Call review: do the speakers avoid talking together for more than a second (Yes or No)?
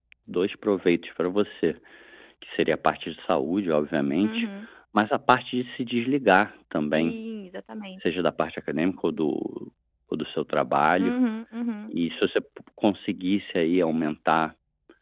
Yes